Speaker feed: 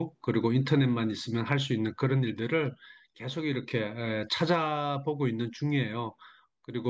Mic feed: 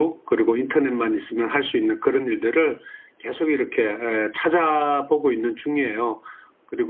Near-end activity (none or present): none